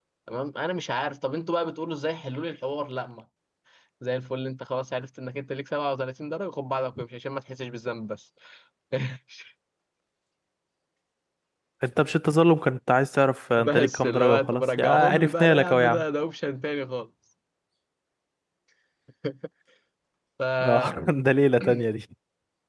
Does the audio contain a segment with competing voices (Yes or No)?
Yes